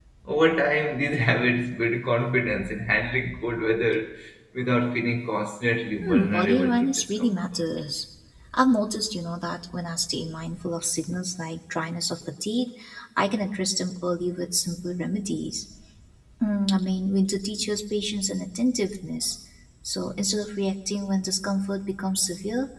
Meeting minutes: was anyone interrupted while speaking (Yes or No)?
Yes